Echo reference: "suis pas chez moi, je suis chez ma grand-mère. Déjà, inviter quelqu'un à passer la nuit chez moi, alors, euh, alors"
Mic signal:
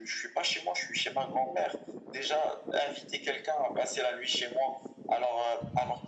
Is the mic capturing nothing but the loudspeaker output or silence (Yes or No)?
Yes